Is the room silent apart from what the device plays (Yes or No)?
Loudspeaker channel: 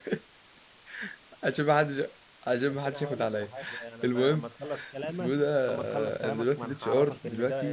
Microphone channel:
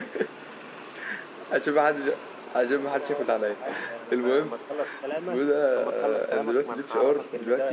Yes